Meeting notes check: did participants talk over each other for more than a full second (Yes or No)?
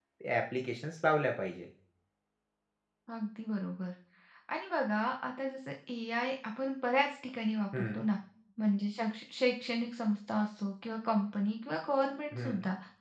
No